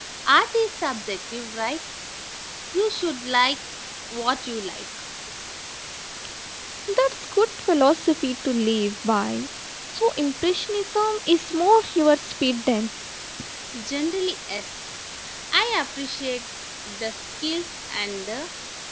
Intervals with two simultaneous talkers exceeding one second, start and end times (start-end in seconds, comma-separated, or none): none